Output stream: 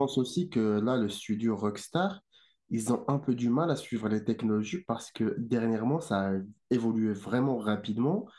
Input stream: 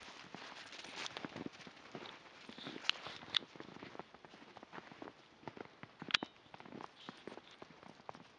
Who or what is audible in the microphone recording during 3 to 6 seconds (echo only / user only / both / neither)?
neither